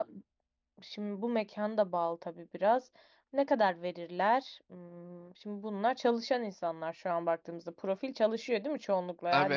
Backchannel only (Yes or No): No